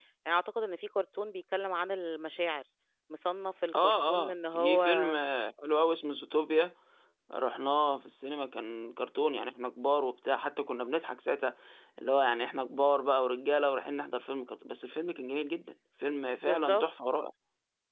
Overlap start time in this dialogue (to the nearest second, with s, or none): 4 s